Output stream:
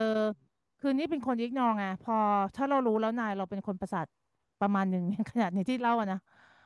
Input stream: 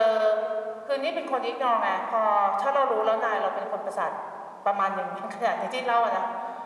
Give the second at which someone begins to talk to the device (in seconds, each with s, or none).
none